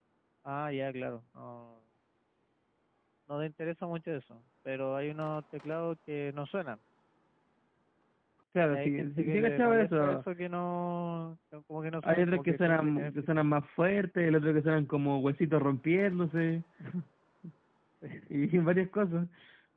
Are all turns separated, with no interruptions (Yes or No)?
No